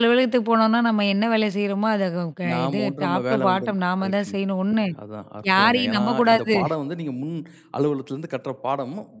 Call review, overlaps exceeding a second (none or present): present